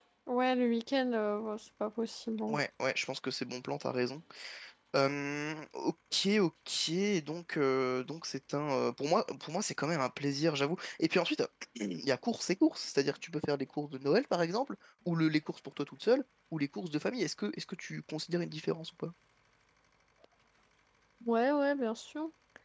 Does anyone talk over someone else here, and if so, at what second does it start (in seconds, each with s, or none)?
none